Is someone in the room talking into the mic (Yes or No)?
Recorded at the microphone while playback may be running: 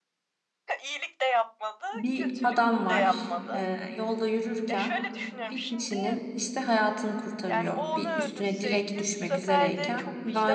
Yes